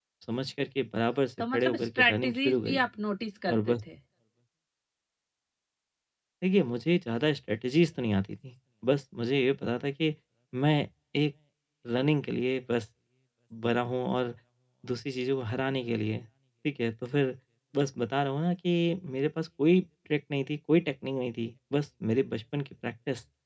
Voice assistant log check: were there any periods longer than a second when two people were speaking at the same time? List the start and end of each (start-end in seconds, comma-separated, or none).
1.5-2.9